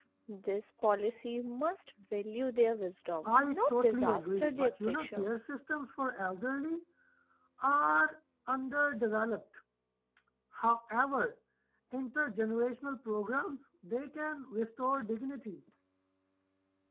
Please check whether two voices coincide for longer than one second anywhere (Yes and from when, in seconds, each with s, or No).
Yes, from 3.2 s